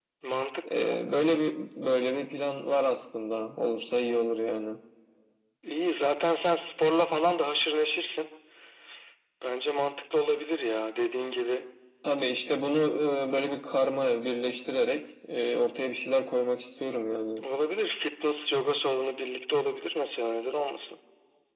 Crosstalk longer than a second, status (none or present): none